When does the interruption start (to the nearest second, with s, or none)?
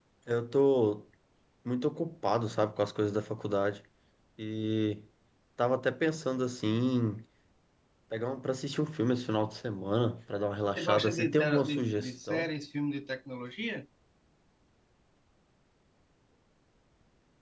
11 s